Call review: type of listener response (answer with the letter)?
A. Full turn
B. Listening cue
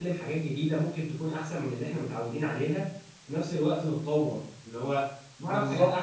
A